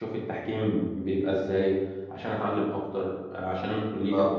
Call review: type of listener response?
taking over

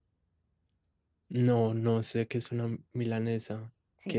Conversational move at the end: taking over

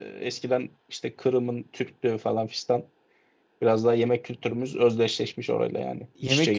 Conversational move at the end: taking over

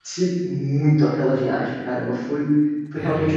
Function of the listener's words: listening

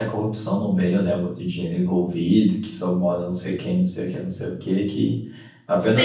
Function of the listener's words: taking over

